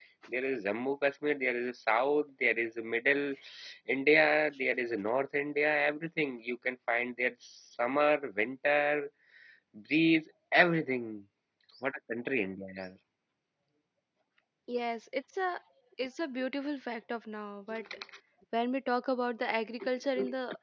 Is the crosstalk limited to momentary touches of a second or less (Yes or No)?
Yes